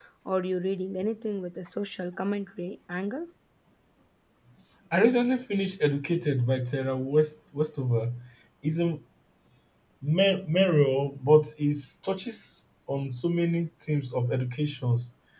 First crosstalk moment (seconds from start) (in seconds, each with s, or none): none